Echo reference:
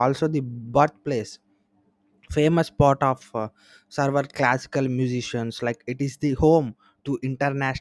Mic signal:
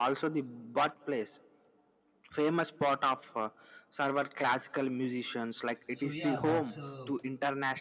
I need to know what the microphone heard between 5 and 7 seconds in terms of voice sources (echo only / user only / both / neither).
both